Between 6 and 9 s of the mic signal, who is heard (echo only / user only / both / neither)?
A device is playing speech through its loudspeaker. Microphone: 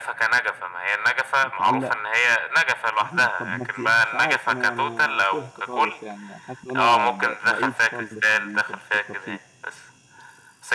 both